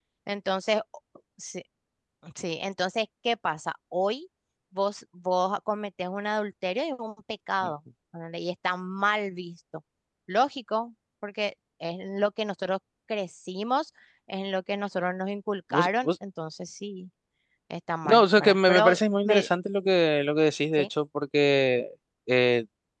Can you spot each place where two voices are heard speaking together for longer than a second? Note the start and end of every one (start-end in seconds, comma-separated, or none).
18.1-19.5